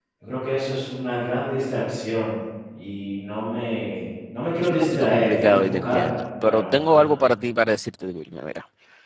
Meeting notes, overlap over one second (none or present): present